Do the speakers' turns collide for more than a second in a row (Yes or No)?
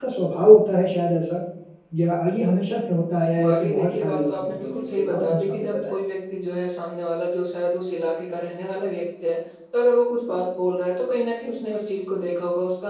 Yes